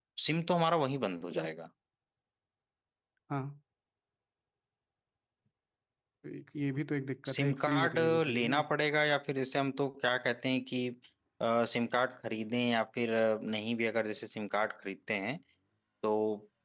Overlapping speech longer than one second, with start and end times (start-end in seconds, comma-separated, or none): 7.2-8.6